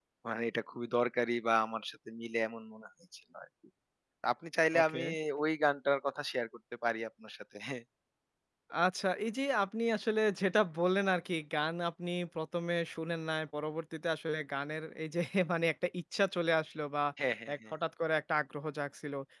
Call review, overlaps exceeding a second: none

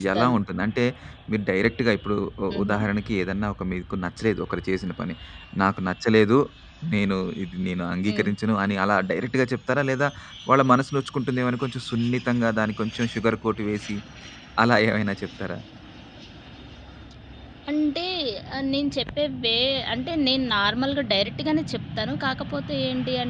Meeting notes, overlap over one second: none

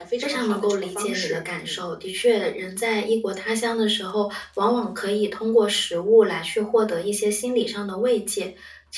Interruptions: present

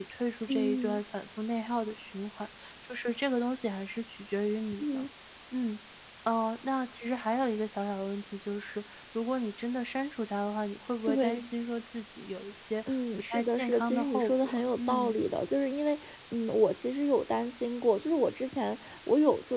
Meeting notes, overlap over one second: present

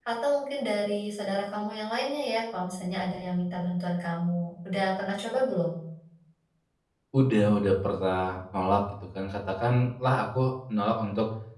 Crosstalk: none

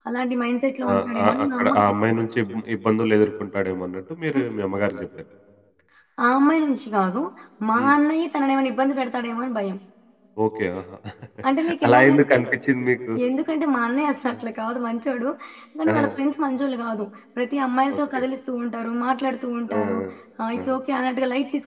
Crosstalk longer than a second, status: present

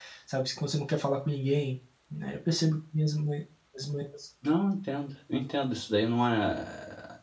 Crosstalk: none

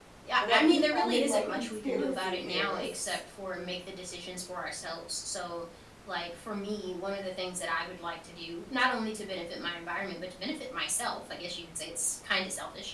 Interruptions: present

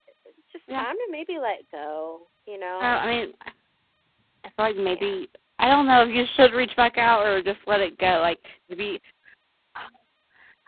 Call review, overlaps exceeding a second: none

